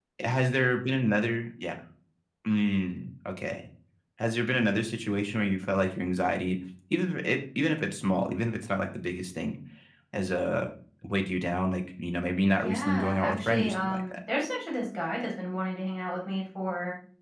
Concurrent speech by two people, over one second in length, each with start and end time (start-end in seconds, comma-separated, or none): 12.6-14.2